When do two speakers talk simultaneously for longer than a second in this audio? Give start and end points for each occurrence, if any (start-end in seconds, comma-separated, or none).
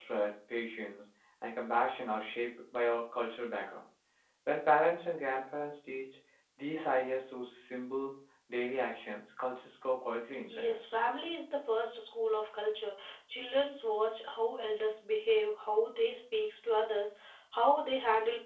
none